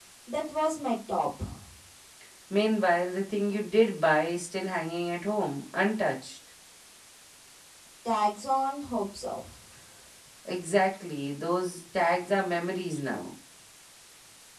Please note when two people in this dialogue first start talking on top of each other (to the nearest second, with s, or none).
none